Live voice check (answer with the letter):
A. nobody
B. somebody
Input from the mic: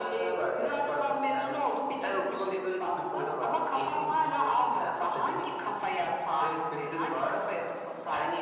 A